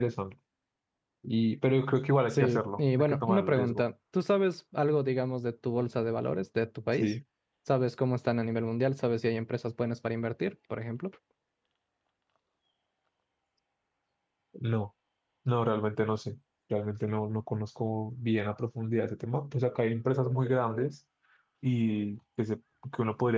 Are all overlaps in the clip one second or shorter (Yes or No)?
No